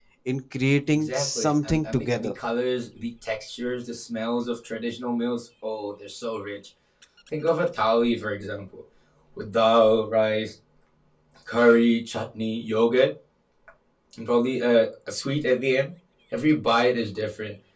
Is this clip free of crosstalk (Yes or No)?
No